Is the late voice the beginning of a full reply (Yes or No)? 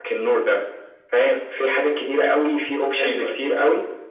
No